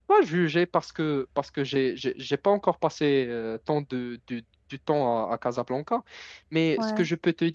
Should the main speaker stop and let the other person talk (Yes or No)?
No